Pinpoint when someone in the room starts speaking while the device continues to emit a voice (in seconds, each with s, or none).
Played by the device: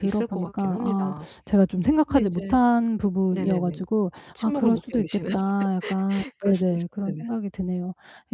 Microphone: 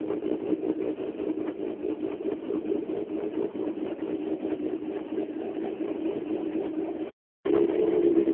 none